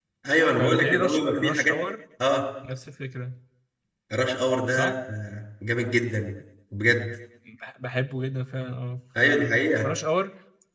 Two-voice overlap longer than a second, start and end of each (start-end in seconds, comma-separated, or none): 0.5-1.8